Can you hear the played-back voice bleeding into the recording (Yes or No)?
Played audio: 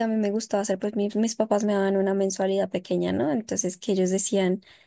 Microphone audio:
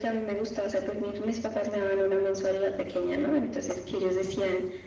Yes